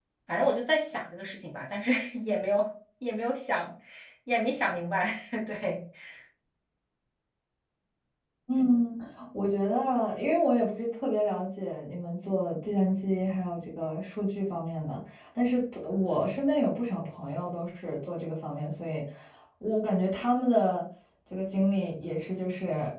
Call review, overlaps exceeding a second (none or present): none